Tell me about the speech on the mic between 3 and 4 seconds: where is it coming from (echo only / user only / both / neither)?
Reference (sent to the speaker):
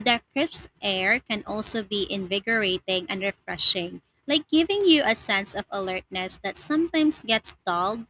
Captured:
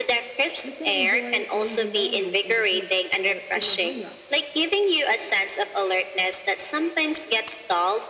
both